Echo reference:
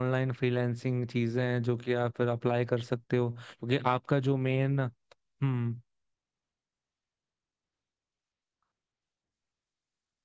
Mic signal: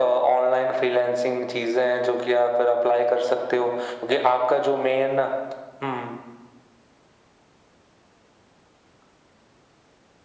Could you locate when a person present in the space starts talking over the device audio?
none

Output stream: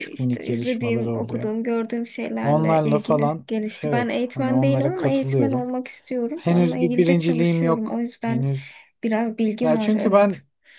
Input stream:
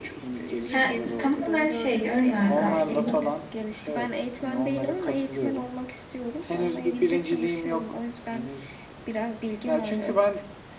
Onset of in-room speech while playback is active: 0.7 s

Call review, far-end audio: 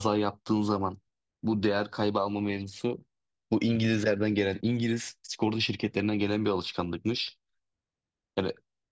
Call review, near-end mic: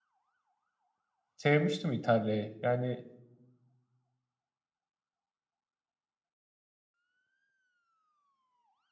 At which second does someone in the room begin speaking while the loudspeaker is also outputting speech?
1.4 s

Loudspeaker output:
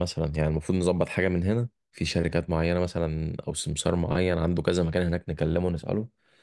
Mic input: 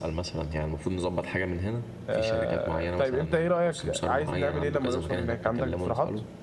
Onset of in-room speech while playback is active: 2.1 s

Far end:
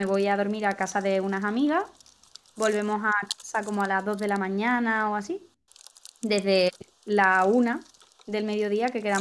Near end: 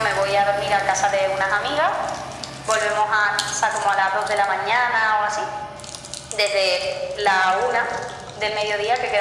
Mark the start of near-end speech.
none

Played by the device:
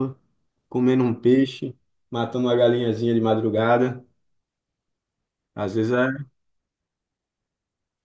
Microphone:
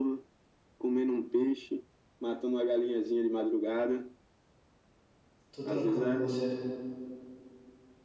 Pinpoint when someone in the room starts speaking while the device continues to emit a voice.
5.5 s

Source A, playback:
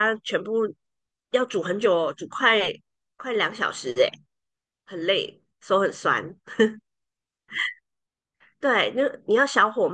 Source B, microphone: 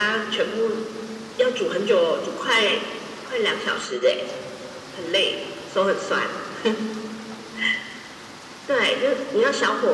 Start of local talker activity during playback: none

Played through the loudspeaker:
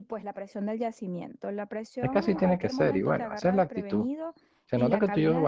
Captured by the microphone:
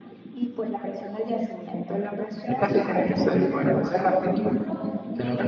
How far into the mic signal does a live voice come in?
2.6 s

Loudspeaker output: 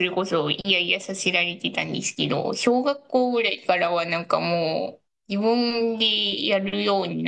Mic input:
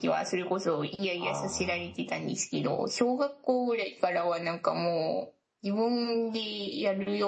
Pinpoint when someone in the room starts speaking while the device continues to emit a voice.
1.2 s

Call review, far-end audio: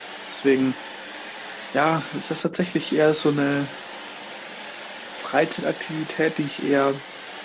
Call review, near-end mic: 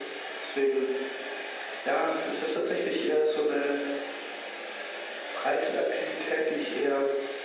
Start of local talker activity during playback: none

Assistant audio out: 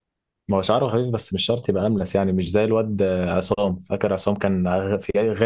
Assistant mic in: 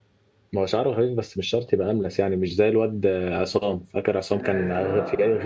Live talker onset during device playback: 4.3 s

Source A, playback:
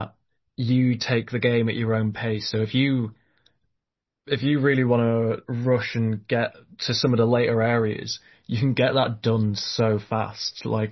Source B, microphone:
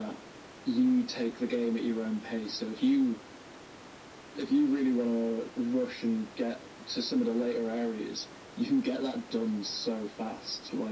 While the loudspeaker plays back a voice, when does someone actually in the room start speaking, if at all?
none

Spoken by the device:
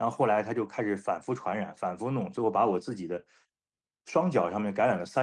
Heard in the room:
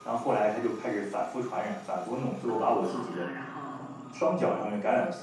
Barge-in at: 2.4 s

